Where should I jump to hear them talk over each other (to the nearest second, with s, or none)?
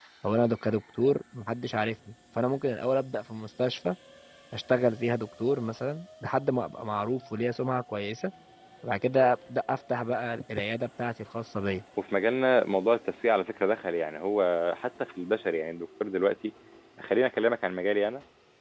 none